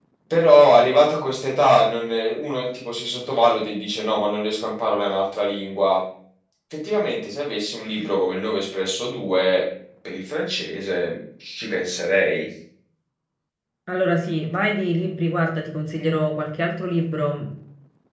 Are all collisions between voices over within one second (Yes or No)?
Yes